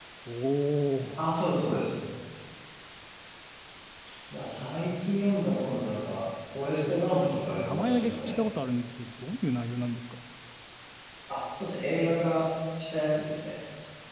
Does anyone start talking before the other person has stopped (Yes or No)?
Yes